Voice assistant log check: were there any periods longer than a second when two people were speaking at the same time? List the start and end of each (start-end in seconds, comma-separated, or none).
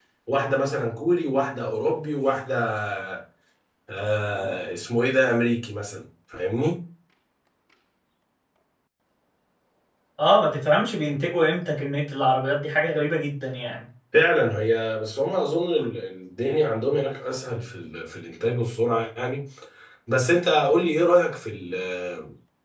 none